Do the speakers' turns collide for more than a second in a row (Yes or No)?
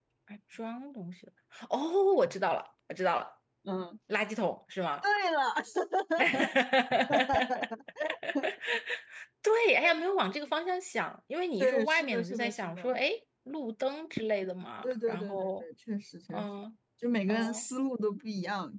Yes